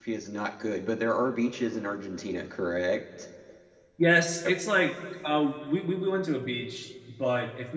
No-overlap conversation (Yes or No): Yes